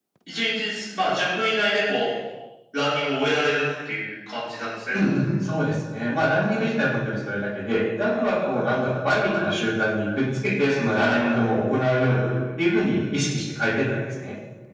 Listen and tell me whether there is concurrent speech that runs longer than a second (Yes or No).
No